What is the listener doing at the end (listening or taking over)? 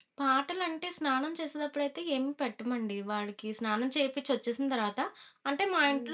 taking over